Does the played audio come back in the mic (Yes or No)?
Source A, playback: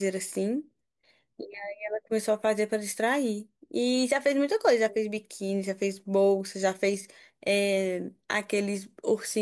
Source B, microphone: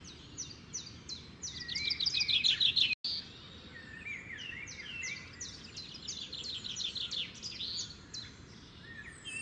No